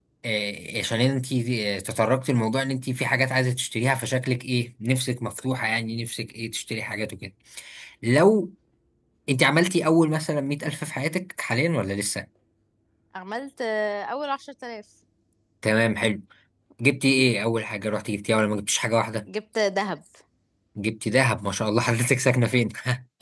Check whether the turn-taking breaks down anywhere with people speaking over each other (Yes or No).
No